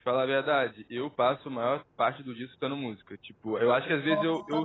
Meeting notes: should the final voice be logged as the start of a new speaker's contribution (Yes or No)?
No